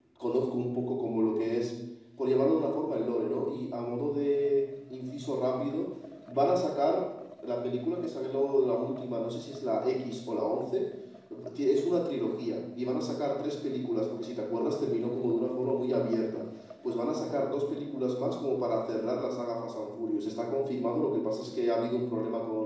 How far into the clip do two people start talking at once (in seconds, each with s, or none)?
none